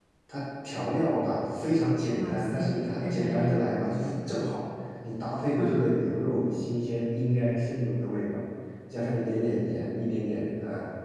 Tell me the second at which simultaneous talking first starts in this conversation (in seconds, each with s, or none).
2.1 s